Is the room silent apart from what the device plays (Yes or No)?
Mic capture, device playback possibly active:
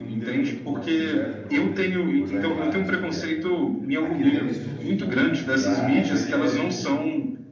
No